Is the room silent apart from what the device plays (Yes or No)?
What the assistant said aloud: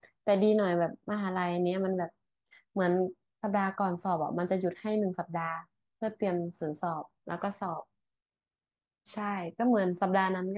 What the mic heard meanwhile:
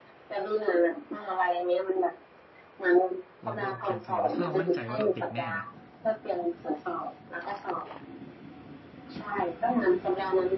No